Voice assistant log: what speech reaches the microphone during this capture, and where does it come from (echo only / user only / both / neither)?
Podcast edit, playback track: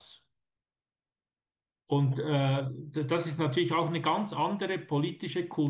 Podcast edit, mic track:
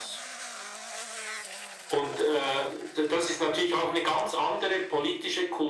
echo only